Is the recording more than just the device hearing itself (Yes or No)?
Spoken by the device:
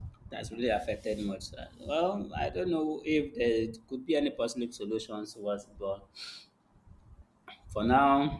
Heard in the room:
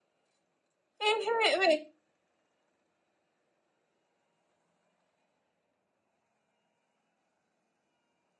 Yes